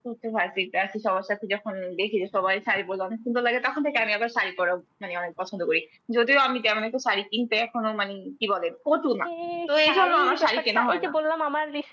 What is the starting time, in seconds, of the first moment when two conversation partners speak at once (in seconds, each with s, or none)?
9.9 s